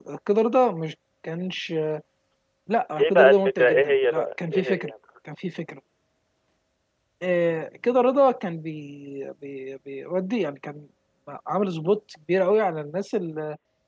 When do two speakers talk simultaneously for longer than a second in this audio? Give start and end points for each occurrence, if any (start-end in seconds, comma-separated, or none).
3.0-4.9